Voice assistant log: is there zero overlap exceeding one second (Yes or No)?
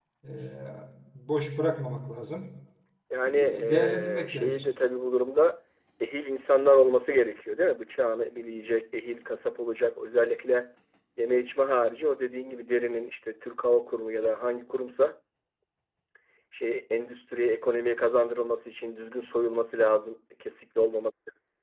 No